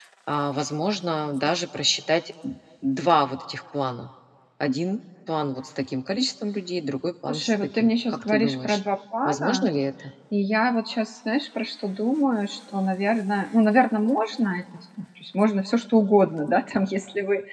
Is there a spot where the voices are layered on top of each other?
Yes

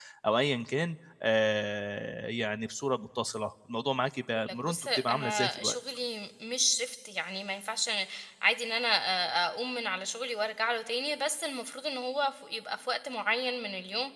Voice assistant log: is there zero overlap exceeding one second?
No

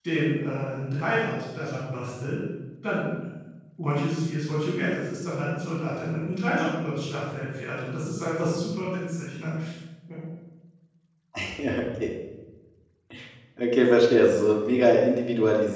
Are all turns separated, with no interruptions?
Yes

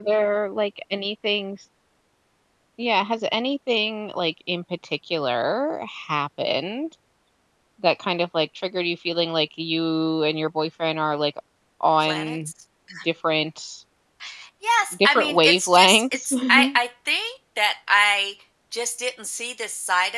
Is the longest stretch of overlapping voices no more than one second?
No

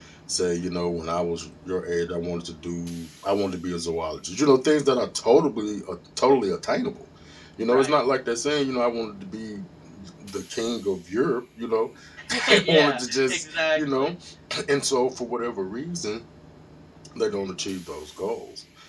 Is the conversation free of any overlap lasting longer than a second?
No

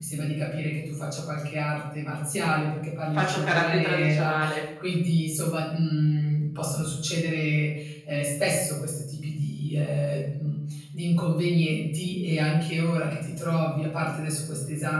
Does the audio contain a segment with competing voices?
Yes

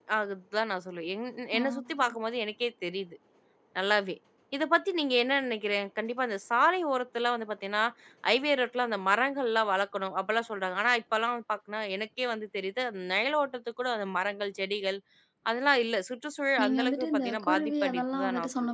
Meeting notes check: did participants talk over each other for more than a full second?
Yes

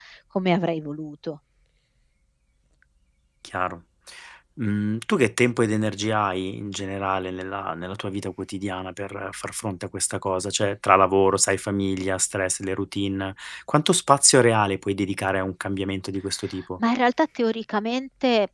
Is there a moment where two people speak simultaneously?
No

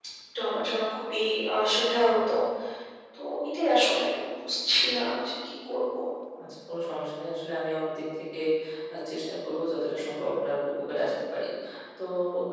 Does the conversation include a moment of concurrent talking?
No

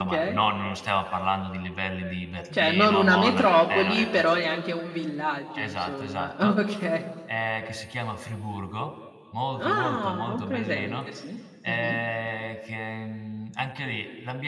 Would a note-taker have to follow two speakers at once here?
Yes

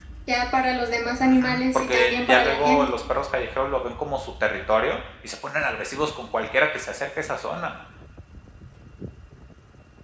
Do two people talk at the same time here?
Yes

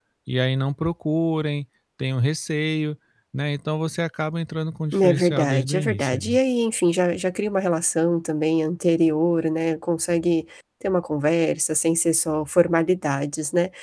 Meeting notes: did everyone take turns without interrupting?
No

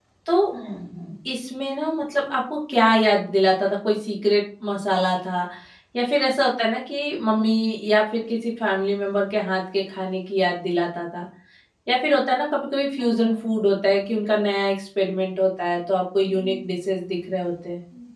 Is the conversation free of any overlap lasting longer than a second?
Yes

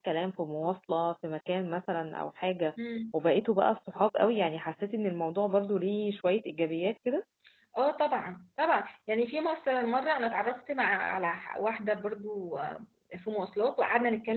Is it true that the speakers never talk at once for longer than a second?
Yes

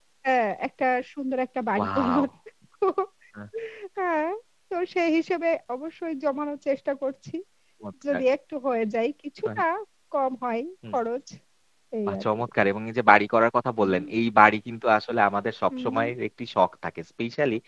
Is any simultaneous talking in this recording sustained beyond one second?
No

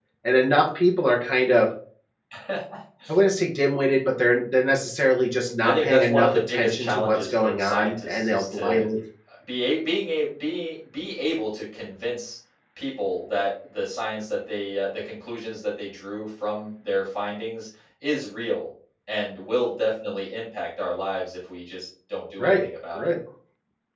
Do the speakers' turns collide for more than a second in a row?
Yes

